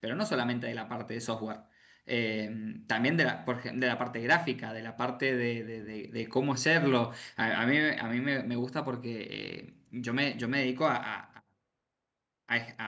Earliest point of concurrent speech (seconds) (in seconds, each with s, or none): none